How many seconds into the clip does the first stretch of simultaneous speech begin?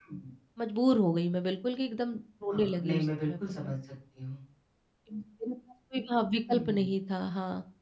2 s

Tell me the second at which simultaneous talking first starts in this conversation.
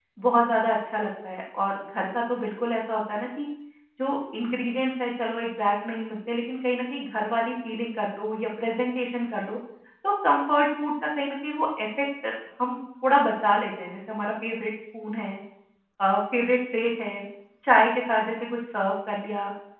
none

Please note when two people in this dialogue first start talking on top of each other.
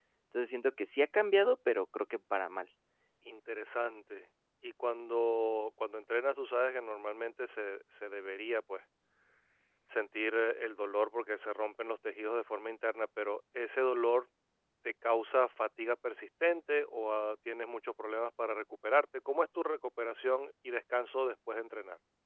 none

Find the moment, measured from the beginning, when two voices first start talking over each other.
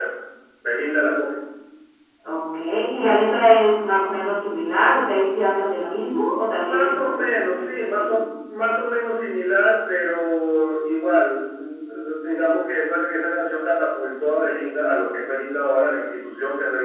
6 s

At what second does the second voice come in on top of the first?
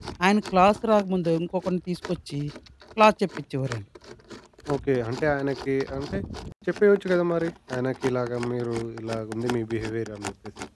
none

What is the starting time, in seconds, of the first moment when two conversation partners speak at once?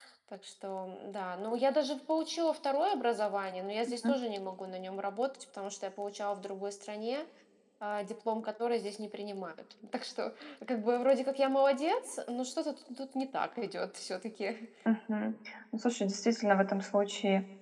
none

